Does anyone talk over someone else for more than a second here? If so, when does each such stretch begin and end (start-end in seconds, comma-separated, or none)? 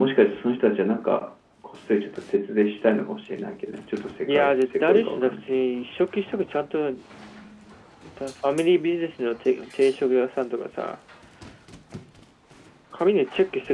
4.2-5.6